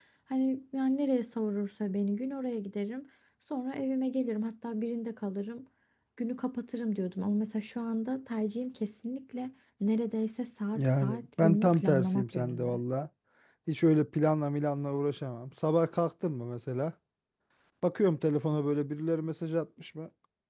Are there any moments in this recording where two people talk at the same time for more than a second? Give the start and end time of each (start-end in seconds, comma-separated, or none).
10.8-12.8